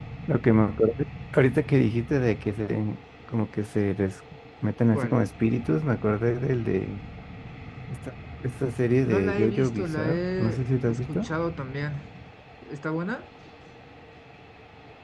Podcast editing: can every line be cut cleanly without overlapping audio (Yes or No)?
No